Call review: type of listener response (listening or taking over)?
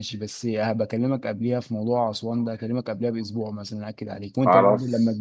listening